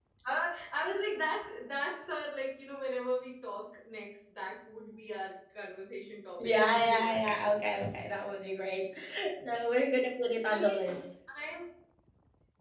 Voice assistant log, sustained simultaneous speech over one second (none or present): present